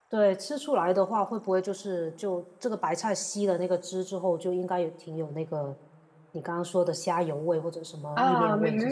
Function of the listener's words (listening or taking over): taking over